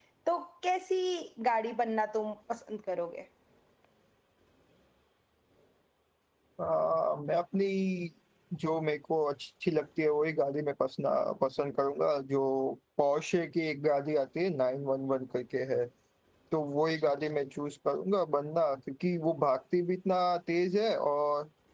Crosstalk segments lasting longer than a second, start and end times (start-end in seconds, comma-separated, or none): none